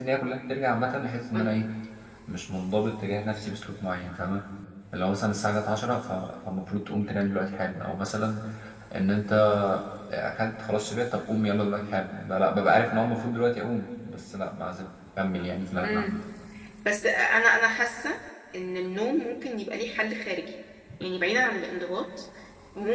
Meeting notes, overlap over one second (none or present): none